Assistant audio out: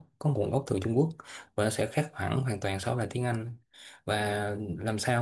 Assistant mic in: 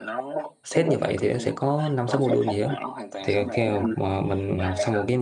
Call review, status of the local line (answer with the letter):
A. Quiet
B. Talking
B